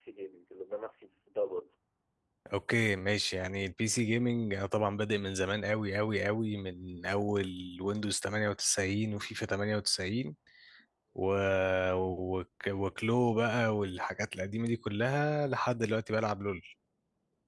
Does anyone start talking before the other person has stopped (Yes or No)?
No